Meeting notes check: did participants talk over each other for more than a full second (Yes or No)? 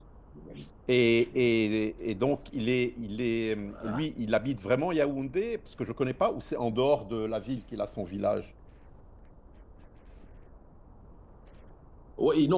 No